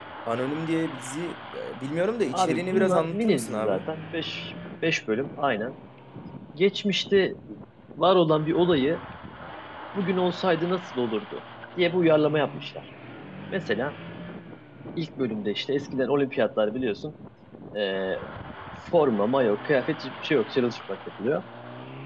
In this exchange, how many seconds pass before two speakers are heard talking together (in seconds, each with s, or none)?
2.3 s